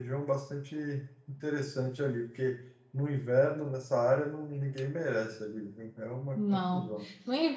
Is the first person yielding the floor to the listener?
Yes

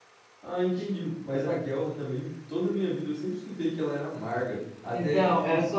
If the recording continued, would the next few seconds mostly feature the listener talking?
Yes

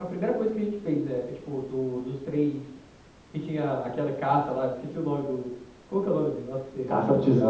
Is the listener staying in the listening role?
No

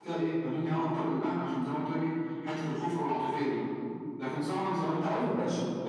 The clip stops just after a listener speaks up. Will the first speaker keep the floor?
Yes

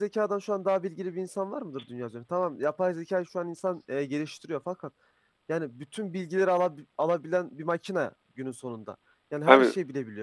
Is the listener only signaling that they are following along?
Yes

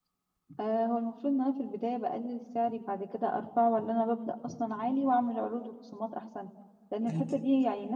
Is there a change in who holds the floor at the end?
No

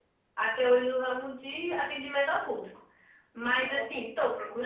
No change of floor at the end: Yes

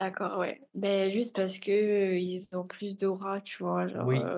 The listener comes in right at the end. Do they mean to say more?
Yes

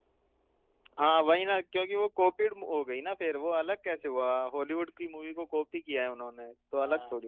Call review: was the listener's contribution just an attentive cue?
No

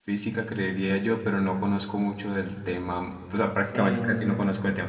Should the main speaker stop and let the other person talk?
No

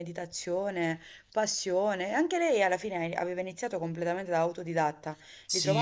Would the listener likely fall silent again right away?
No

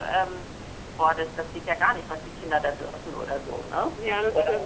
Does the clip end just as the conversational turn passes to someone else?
Yes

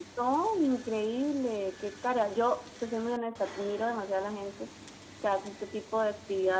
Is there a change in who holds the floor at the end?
No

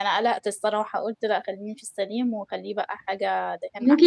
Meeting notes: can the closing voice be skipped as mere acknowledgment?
No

